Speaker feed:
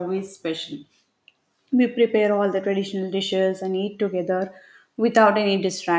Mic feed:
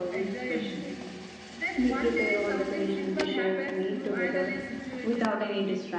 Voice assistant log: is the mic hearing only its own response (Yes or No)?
No